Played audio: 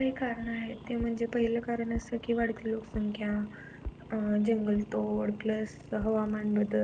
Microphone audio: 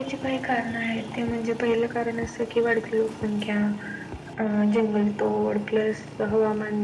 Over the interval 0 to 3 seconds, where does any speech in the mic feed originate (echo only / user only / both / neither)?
echo only